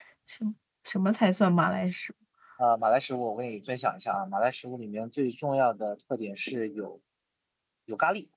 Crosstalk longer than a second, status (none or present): none